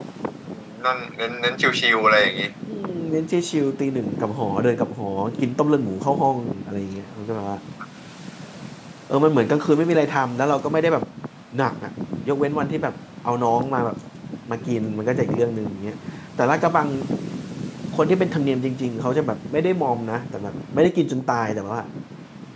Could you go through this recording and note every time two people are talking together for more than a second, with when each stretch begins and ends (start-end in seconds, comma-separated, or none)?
none